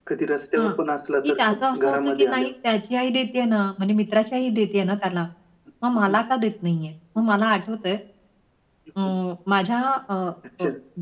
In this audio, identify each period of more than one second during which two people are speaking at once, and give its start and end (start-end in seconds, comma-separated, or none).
1.2-2.5